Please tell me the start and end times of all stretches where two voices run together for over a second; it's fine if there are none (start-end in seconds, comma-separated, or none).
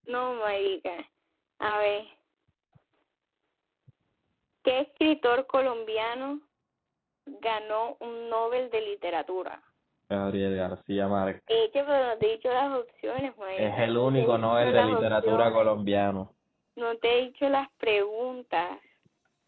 13.6-15.7